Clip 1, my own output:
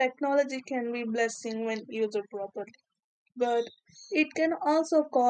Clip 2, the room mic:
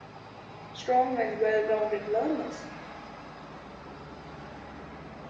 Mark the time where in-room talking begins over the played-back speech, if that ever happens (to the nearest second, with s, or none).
1 s